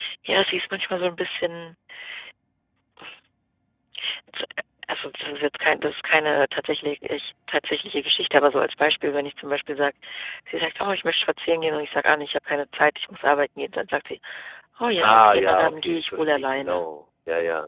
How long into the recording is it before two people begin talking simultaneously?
15.0 s

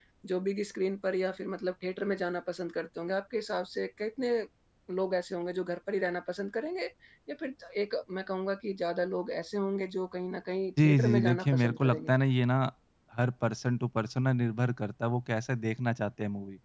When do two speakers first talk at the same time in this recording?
10.8 s

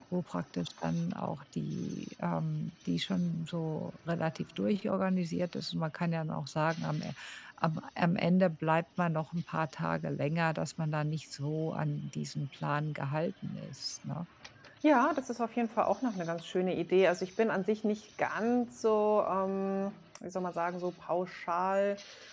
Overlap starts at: none

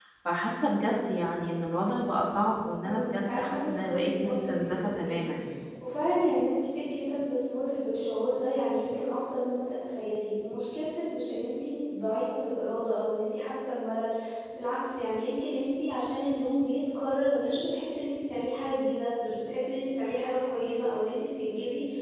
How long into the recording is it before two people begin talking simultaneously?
2.8 s

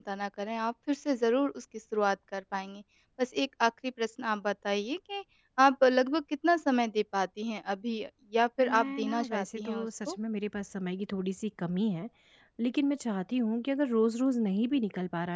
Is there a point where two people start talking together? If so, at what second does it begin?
8.6 s

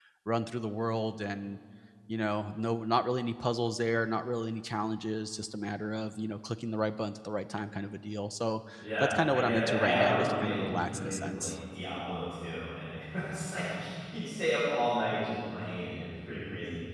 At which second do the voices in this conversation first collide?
9.0 s

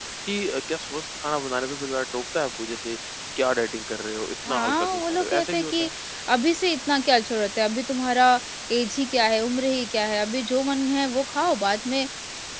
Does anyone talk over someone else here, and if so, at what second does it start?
4.4 s

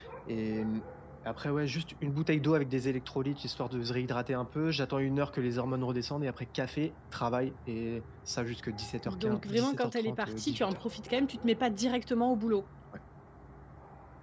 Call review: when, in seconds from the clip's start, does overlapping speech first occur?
9.0 s

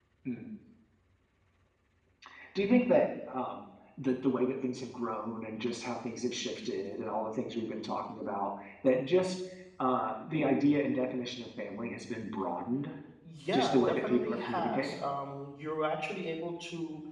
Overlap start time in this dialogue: 13.5 s

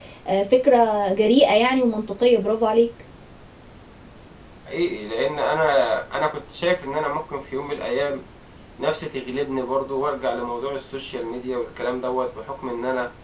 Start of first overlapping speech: none

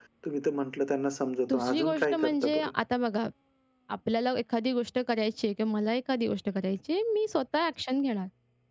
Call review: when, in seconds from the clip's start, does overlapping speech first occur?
1.5 s

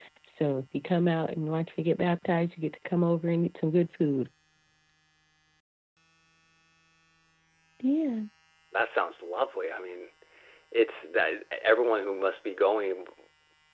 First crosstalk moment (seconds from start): none

